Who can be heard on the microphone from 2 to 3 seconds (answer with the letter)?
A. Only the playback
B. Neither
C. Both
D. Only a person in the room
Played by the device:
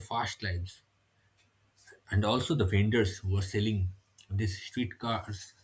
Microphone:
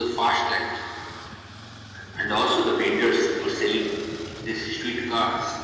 A